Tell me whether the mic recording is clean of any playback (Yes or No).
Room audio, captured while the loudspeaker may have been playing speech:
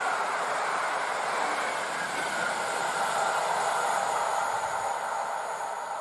Yes